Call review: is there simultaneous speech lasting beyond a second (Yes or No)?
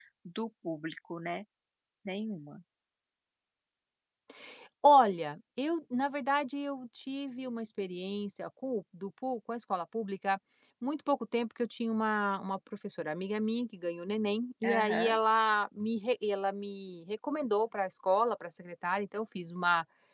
No